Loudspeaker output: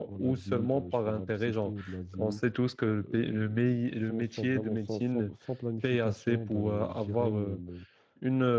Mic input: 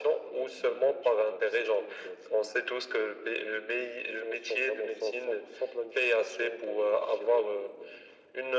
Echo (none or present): present